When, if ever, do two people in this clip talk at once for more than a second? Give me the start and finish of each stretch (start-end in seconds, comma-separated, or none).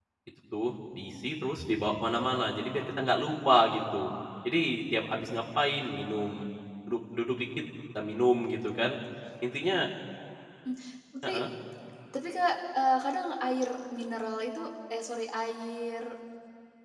none